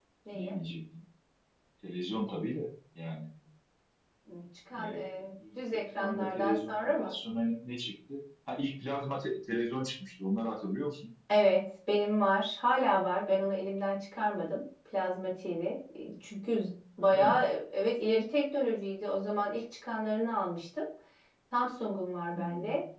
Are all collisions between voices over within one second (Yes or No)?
No